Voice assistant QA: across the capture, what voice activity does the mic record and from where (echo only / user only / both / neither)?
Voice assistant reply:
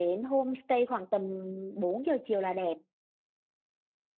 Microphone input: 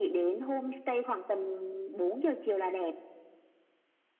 echo only